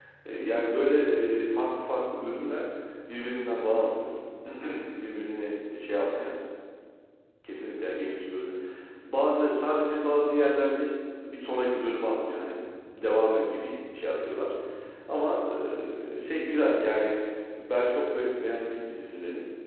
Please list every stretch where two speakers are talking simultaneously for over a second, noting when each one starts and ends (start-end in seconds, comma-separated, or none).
none